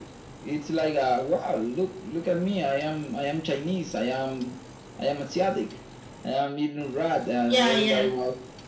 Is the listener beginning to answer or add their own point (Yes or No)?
No